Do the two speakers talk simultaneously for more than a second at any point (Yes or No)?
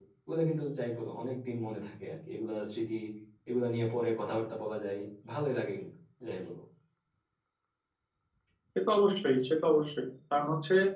No